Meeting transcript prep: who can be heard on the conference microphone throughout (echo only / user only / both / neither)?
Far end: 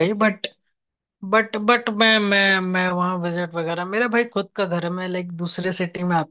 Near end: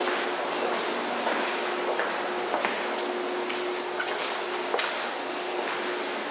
neither